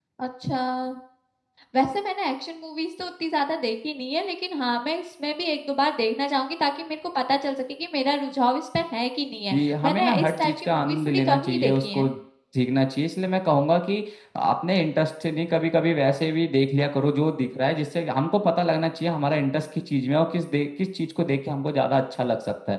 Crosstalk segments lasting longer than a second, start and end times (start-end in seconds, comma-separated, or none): 9.5-12.0